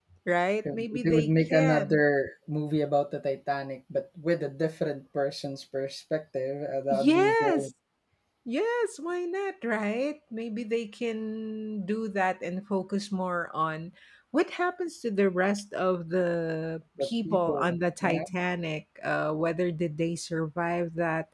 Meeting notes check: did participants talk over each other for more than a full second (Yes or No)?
Yes